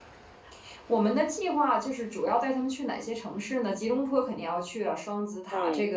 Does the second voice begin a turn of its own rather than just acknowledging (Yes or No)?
No